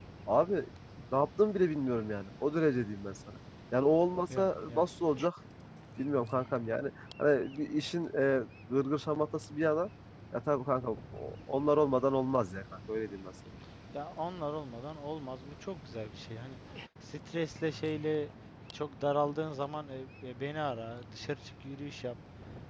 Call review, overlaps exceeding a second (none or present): none